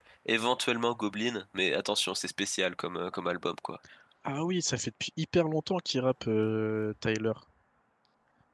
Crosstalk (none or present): none